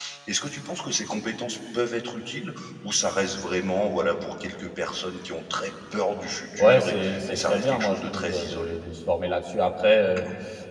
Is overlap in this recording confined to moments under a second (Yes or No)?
No